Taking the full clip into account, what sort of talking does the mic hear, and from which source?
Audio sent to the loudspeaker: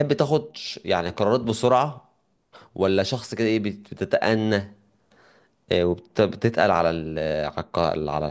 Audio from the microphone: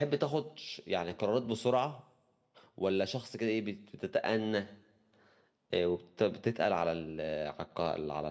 echo only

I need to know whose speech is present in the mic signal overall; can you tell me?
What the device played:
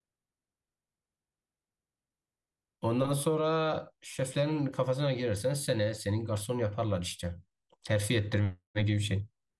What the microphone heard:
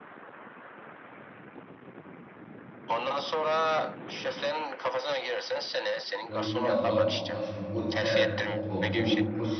both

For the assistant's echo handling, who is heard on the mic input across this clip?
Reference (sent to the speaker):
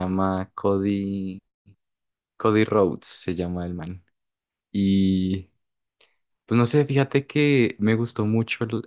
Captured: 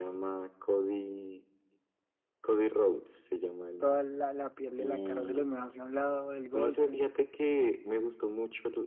both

